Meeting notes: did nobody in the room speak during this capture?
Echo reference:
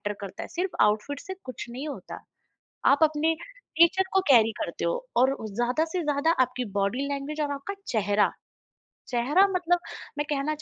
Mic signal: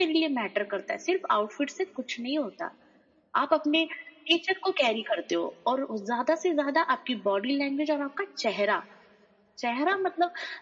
Yes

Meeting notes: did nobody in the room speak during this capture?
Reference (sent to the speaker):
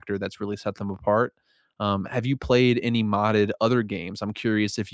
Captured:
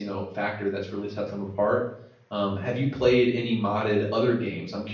Yes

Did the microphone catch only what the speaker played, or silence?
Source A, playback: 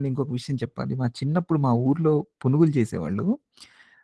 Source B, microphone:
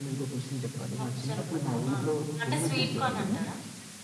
No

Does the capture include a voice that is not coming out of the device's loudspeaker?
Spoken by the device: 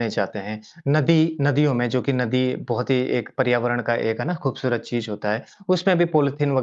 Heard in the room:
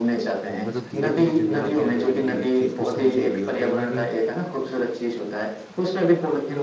Yes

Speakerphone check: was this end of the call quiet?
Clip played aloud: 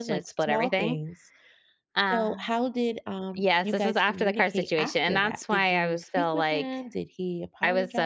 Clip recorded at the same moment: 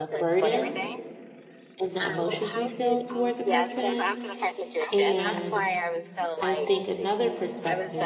No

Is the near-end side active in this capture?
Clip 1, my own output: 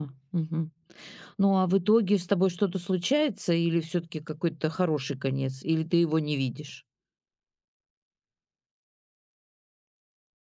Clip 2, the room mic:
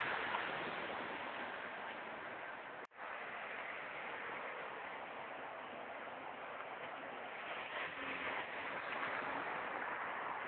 No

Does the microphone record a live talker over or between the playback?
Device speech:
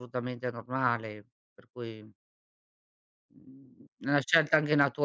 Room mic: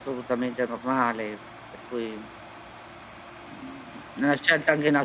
No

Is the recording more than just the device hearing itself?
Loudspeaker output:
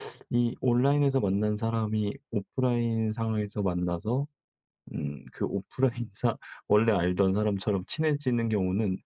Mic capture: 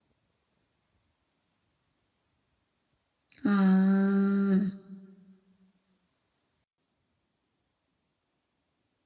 Yes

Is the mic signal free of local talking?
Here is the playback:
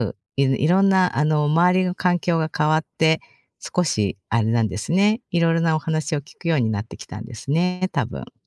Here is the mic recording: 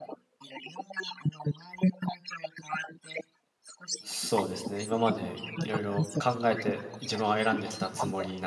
No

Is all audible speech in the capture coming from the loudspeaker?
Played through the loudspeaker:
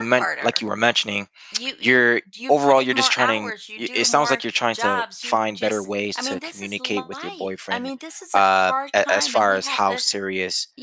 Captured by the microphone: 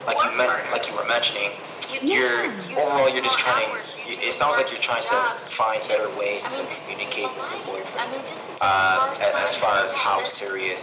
No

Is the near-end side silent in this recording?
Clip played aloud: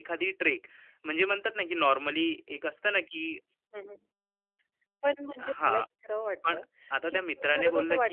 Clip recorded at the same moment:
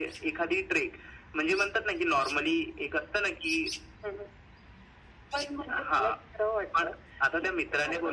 Yes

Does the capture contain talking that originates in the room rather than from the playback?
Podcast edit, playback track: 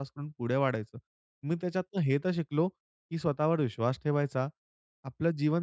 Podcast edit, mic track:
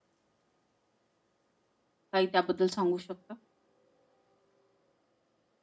Yes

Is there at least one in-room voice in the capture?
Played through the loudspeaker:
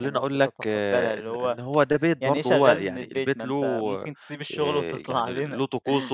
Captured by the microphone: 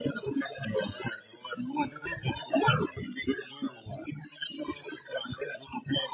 No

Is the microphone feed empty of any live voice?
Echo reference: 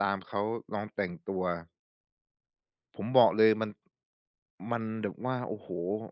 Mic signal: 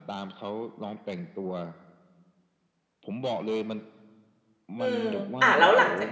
No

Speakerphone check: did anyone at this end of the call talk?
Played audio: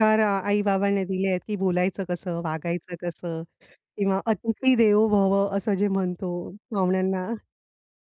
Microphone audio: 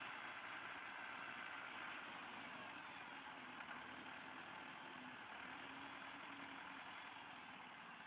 No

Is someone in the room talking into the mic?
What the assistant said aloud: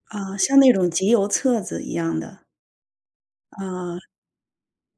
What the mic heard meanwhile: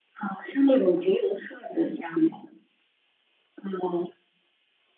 No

